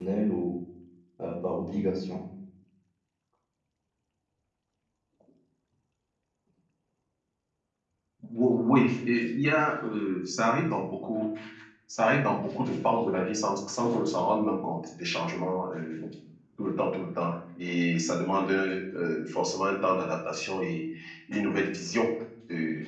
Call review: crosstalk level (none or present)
none